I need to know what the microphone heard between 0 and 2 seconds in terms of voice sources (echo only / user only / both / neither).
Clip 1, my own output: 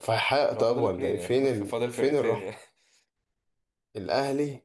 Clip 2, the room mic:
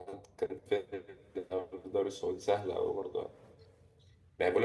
user only